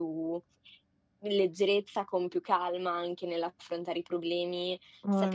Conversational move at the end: listening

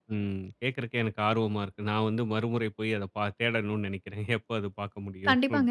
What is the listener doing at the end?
taking over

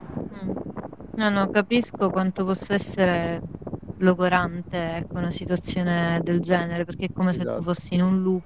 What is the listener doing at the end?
listening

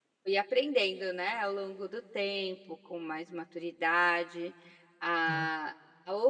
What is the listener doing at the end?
listening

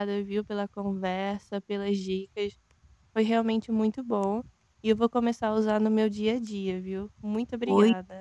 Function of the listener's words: taking over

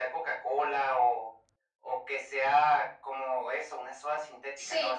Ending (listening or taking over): taking over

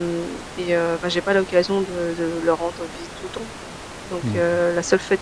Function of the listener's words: listening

